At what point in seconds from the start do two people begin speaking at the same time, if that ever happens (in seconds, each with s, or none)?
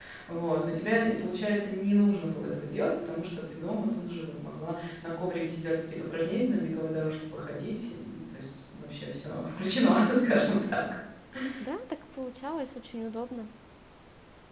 none